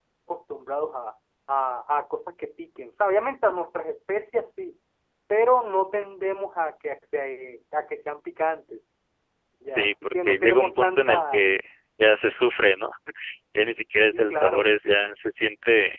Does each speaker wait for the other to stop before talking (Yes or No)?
No